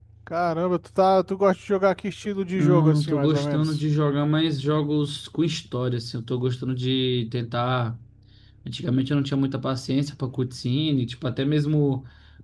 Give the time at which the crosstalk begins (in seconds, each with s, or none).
2.6 s